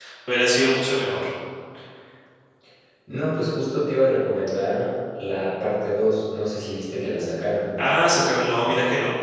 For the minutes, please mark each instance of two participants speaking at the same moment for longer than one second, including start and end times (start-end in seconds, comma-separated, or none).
none